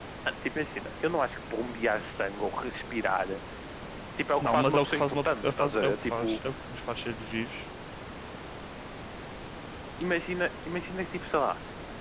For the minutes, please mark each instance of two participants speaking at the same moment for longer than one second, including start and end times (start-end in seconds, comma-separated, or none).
4.4-6.4